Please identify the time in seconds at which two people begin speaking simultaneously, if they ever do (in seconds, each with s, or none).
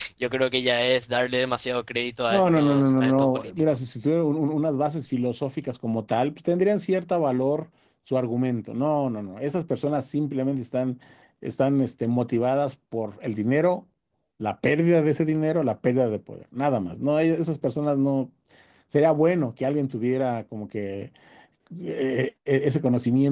2.3 s